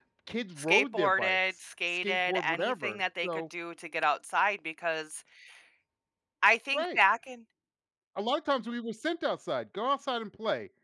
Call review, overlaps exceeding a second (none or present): present